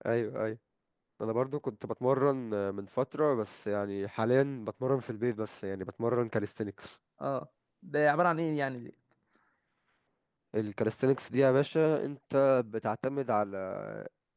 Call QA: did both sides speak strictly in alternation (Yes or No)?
Yes